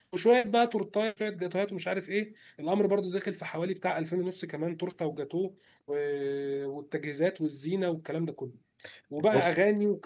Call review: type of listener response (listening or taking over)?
listening